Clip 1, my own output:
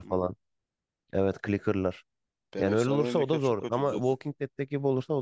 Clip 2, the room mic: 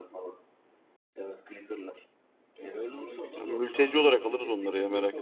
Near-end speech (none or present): present